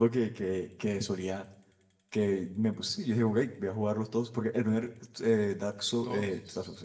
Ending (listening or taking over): listening